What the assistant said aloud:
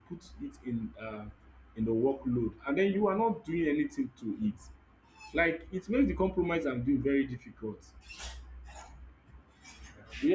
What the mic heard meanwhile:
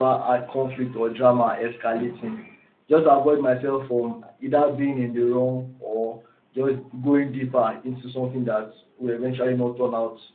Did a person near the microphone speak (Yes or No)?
Yes